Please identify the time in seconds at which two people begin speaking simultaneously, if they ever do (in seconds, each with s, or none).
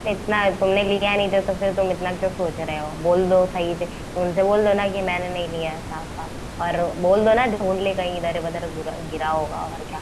none